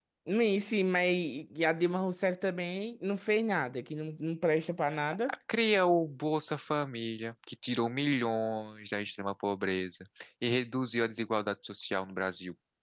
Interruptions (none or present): none